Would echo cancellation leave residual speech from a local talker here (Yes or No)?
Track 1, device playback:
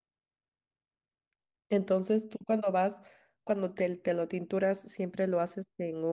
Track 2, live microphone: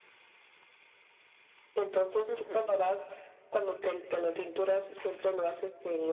Yes